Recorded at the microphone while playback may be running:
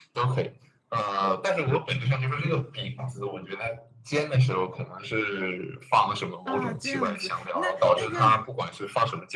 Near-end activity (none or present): present